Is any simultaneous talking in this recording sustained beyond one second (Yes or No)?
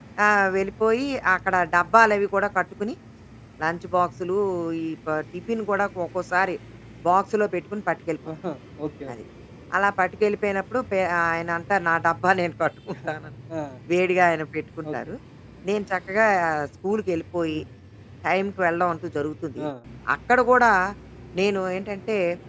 No